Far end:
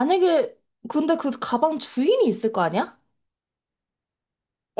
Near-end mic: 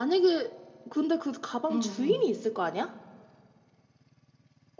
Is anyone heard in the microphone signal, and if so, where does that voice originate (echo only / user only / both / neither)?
both